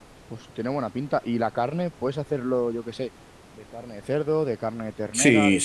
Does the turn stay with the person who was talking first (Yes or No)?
No